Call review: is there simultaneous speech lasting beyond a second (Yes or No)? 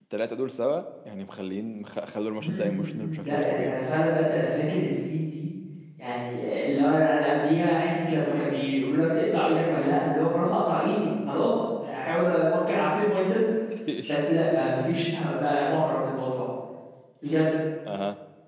Yes